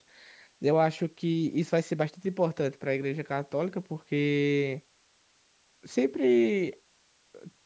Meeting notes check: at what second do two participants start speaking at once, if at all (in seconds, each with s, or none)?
none